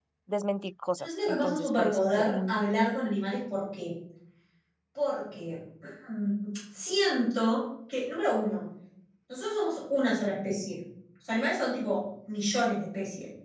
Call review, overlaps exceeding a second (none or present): present